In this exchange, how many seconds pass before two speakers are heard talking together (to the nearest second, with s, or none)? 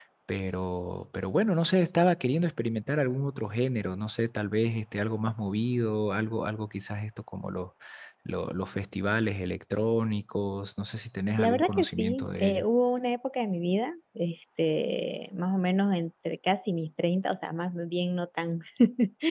11 s